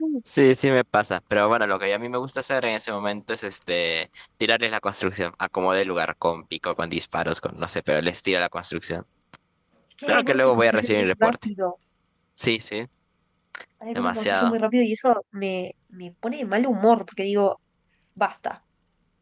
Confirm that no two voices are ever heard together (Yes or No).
No